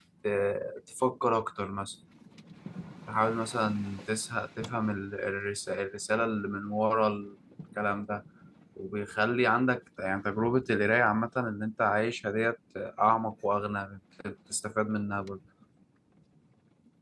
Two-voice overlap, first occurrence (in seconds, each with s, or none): none